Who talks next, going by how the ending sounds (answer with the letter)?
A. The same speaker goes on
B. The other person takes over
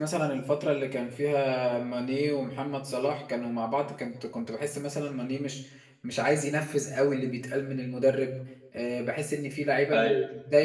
A